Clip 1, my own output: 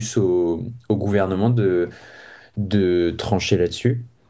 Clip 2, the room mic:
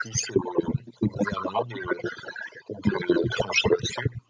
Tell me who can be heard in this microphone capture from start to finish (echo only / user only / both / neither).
echo only